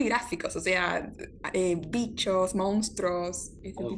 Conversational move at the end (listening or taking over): taking over